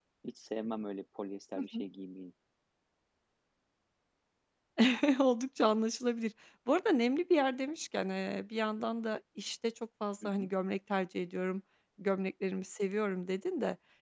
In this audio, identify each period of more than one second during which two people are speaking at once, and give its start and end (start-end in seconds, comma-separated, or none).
none